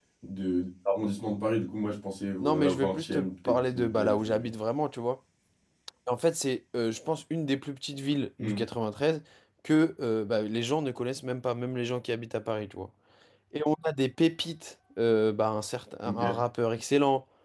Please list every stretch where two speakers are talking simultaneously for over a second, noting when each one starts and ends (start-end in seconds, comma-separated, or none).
2.4-4.5